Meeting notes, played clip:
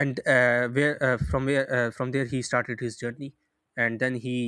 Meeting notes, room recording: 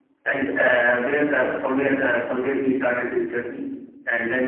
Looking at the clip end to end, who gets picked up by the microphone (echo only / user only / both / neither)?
echo only